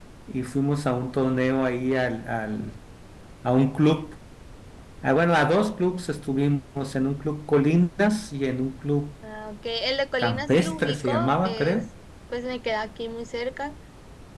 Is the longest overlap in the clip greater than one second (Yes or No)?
Yes